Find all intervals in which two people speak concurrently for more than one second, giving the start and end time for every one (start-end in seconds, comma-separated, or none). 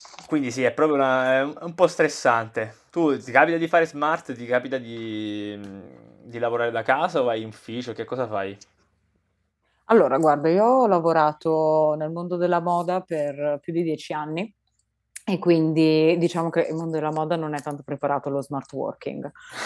none